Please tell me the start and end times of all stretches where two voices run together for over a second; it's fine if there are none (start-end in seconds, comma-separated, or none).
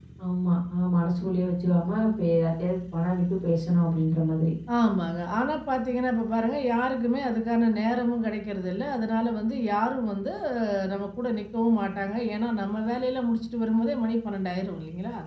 none